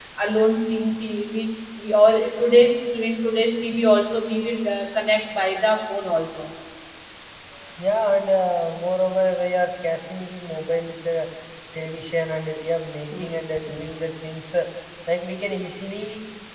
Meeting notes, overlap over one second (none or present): none